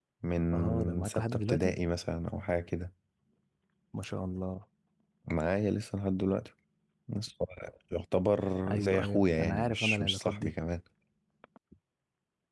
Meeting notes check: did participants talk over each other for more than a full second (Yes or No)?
Yes